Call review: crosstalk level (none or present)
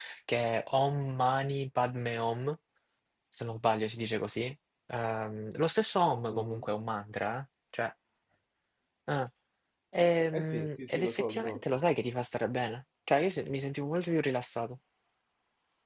present